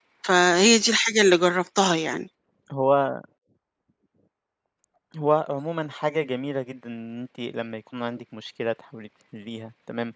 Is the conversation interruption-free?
Yes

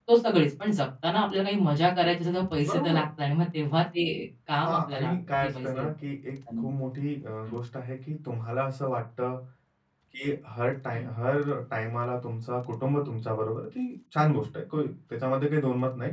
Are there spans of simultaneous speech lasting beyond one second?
Yes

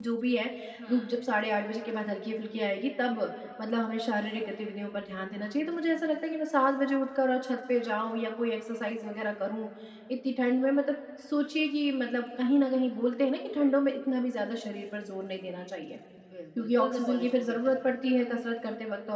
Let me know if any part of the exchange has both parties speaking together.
Yes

